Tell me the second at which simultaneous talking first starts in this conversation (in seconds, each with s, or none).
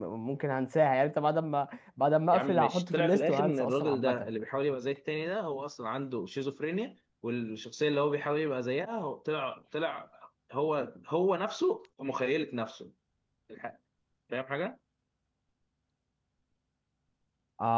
2.3 s